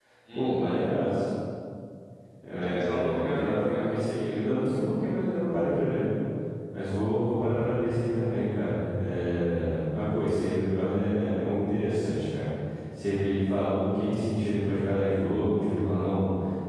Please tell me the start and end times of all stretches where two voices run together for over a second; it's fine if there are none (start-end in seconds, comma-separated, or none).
2.5-4.0